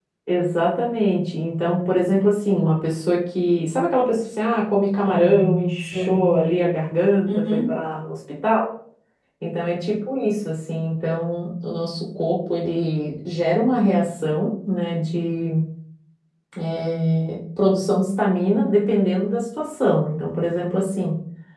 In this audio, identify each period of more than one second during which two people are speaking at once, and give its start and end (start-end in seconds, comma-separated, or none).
5.0-6.3